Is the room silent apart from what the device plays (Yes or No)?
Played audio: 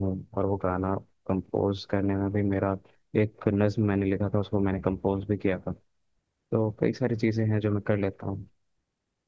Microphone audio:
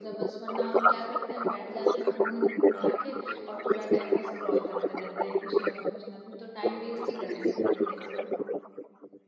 No